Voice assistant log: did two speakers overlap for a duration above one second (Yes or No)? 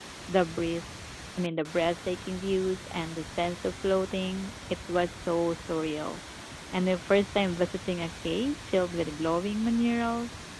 No